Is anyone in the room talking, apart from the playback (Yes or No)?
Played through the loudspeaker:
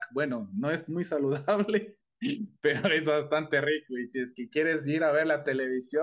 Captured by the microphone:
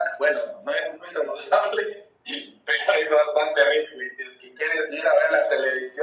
No